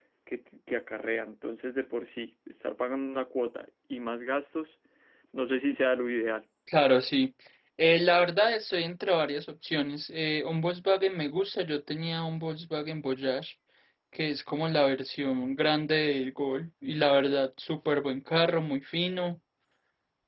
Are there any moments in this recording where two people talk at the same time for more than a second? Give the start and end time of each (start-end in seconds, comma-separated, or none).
none